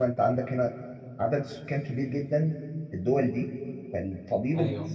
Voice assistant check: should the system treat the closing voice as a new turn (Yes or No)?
No